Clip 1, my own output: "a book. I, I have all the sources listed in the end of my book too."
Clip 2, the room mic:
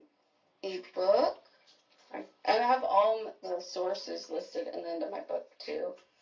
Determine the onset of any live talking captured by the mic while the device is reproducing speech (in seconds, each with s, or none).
none